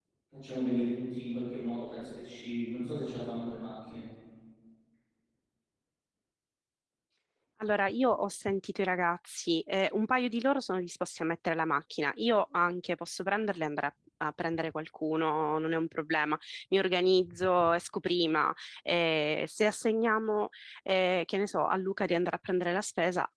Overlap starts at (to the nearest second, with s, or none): none